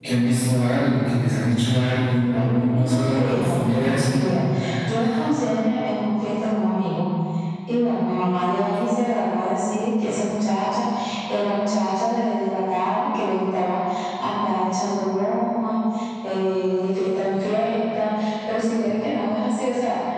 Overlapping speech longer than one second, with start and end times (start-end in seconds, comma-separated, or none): 2.3-4.2